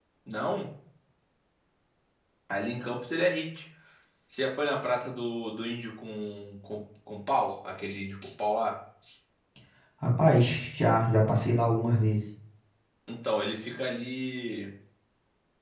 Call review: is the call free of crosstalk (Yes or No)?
Yes